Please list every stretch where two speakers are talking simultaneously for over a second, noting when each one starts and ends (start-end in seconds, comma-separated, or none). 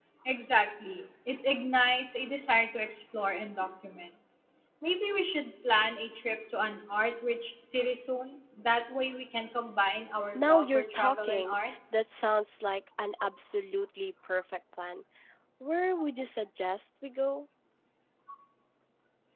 10.3-11.7